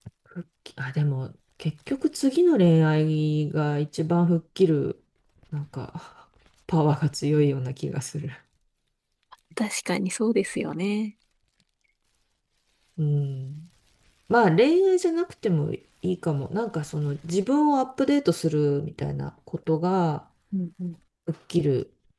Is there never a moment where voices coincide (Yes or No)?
Yes